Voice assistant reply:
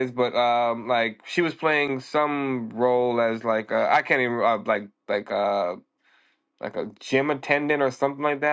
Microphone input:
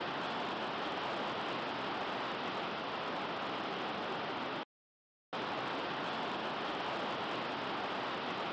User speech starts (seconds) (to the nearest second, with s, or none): none